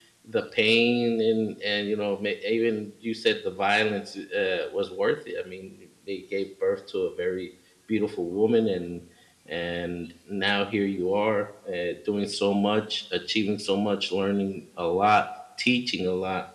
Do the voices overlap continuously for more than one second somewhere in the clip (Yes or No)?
No